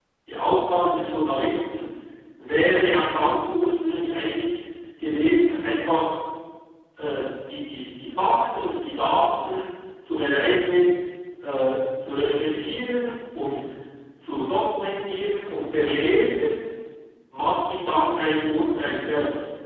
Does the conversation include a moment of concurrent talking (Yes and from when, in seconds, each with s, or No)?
No